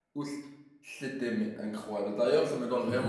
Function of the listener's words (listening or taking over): listening